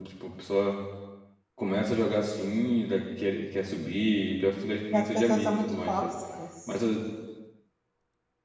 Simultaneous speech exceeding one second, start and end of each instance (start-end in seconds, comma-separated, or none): 4.9-6.1